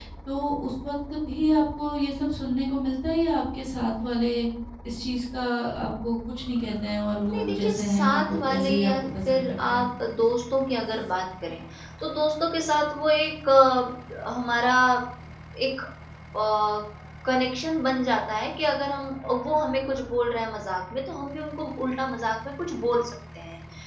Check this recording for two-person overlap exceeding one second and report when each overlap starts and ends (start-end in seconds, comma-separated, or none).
7.3-9.8